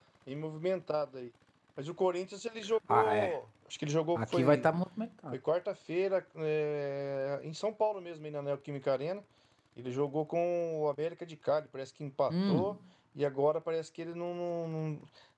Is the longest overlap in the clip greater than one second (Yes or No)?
No